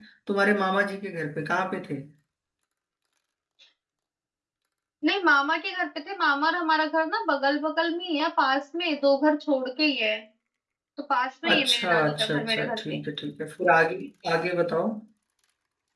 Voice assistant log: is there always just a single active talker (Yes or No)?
No